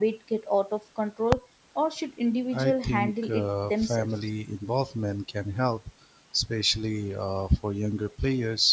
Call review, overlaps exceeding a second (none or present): present